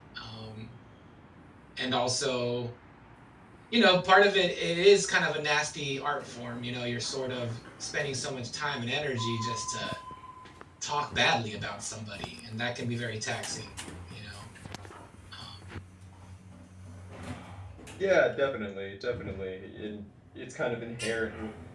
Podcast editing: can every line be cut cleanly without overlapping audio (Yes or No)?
Yes